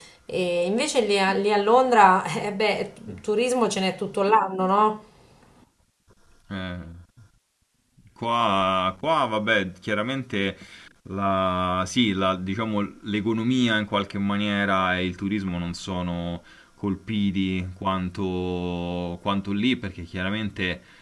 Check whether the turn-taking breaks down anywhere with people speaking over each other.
No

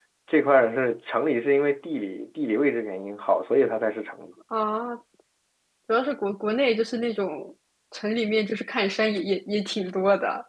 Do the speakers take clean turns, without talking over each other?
Yes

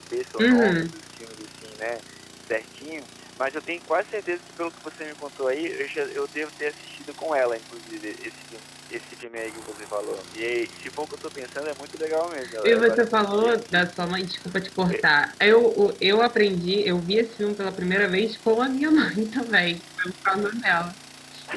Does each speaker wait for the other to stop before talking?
No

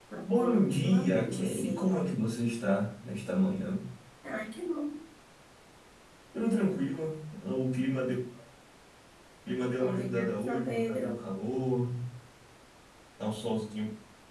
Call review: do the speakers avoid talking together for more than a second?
No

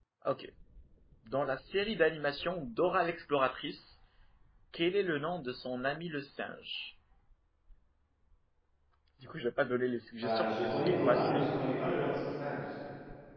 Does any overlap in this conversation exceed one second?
Yes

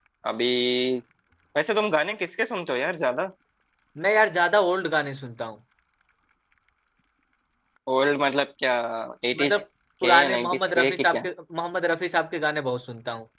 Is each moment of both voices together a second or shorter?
No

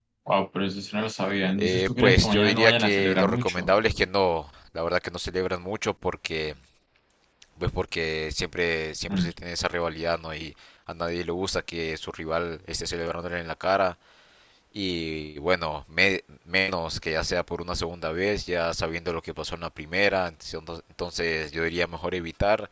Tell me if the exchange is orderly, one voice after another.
No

